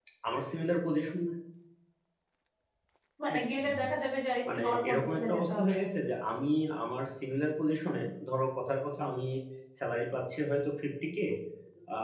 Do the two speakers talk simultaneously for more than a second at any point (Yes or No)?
Yes